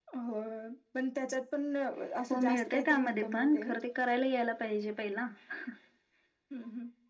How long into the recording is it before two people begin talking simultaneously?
2.3 s

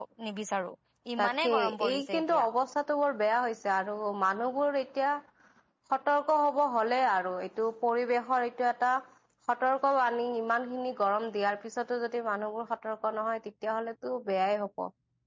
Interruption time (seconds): 1.2 s

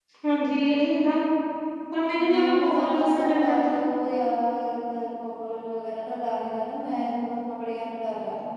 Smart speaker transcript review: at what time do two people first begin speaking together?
2.3 s

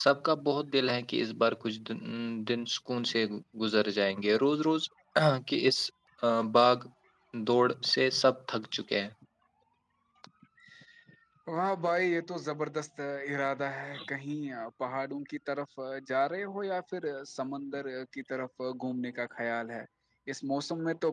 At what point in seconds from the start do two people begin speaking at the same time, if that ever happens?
none

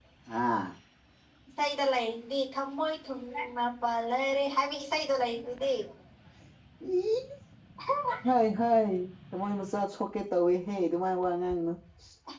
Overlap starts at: none

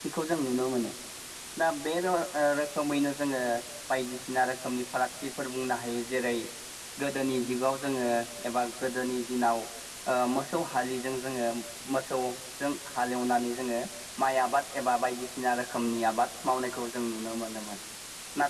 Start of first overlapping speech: none

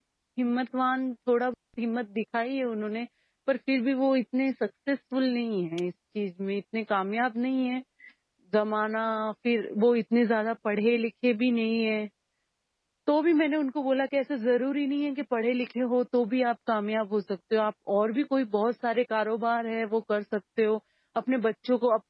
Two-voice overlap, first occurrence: none

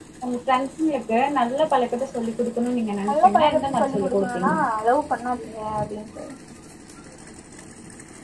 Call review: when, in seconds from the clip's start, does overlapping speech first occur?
3.1 s

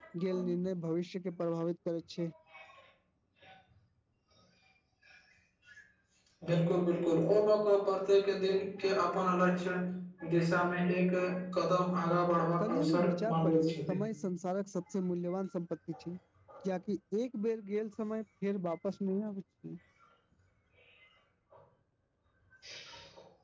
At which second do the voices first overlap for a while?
12.6 s

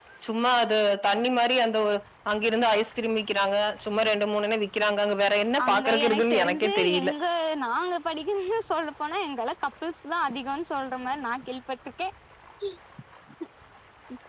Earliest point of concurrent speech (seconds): 5.6 s

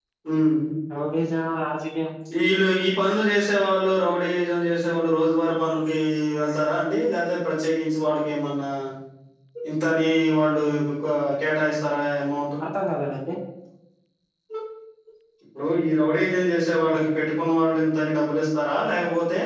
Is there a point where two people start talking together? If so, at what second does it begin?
none

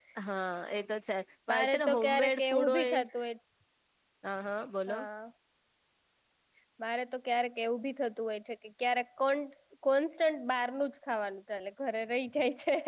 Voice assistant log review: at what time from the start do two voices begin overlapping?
1.5 s

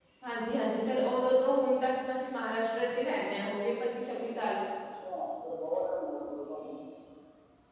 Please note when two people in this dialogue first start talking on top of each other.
none

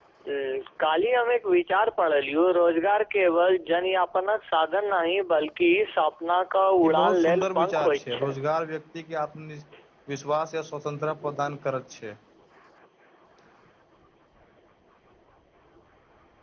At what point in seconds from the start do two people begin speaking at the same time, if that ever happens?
6.8 s

